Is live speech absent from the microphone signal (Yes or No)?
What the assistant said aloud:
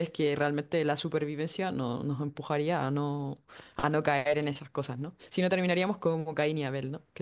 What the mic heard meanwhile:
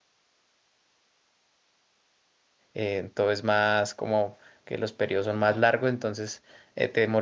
No